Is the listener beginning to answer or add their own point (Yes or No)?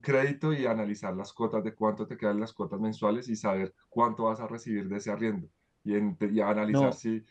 No